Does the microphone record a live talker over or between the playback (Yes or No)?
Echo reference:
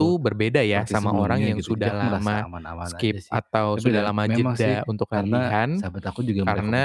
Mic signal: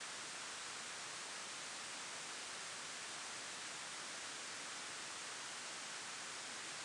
No